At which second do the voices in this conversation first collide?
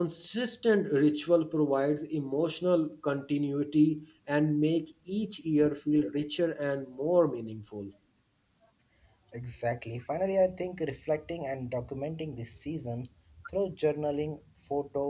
none

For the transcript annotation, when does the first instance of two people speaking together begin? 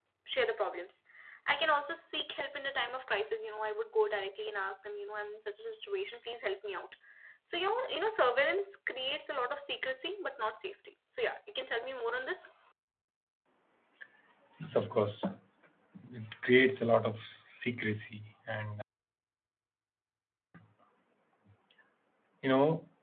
none

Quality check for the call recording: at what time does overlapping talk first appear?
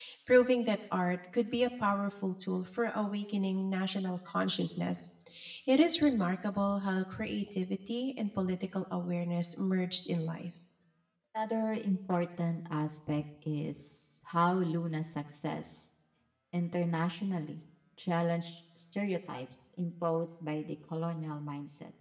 none

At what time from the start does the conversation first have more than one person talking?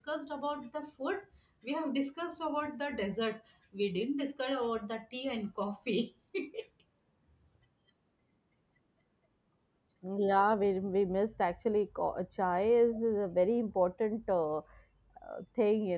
none

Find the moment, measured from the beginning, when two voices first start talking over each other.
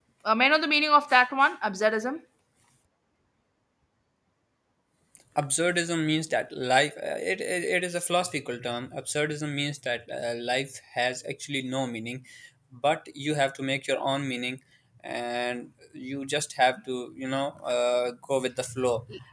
none

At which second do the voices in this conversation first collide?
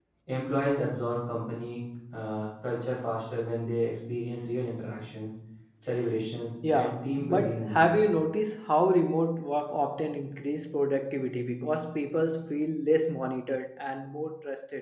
6.6 s

